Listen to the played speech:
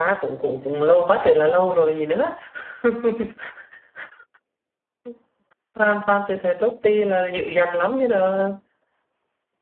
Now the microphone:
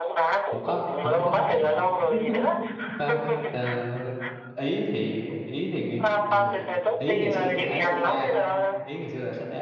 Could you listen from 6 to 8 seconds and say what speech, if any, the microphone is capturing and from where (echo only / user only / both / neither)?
both